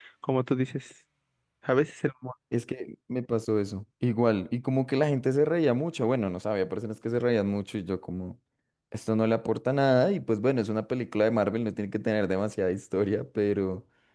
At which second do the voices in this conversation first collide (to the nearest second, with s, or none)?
none